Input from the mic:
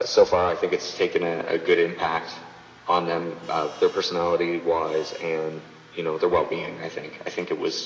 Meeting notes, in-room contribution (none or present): none